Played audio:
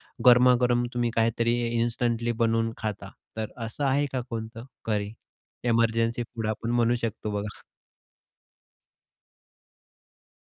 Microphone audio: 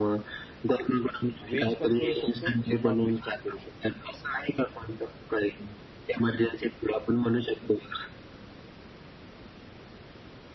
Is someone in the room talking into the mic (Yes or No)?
Yes